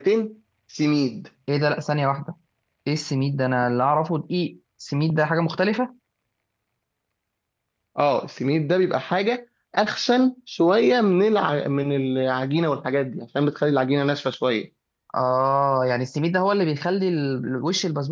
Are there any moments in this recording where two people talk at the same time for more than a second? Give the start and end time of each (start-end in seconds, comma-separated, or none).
none